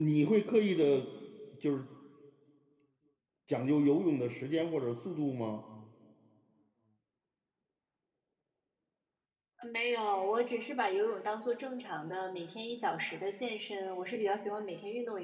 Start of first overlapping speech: none

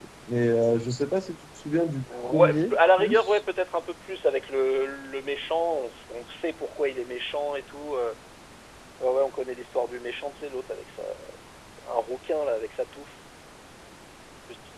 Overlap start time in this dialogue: 2.1 s

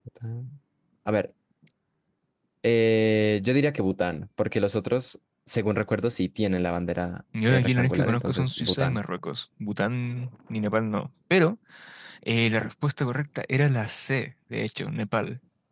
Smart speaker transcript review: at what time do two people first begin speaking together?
7.3 s

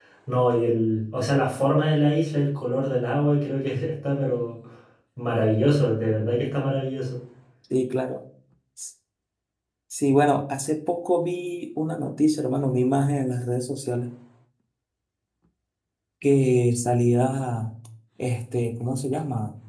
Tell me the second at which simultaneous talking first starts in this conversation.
none

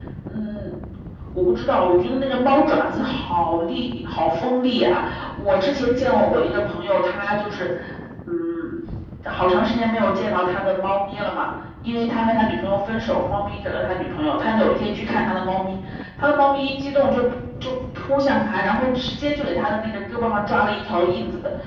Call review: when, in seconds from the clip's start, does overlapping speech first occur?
none

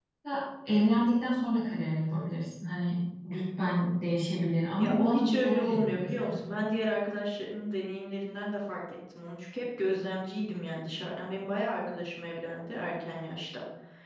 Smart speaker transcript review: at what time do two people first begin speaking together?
4.7 s

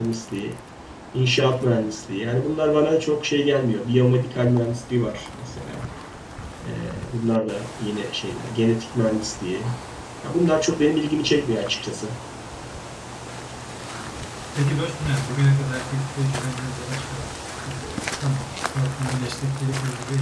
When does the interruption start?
none

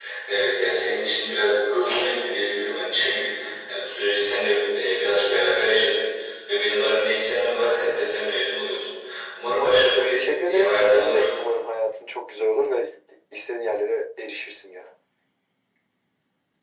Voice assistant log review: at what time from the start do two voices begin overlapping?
9.5 s

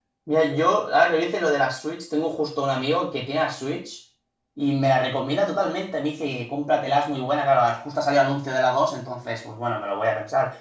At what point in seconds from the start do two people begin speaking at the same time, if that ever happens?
none

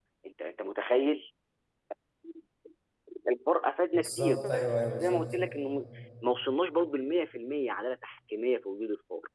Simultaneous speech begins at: 4.0 s

